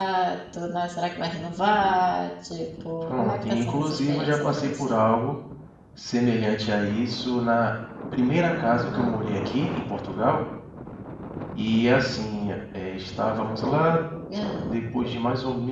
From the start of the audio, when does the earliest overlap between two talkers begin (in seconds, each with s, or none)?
3.0 s